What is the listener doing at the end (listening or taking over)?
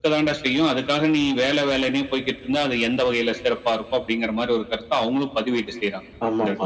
taking over